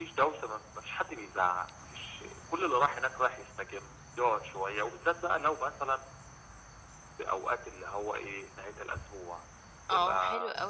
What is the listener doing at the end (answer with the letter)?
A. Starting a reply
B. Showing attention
A